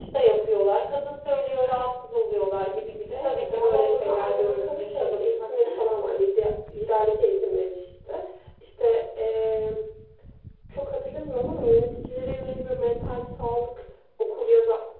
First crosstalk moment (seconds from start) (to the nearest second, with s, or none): 3 s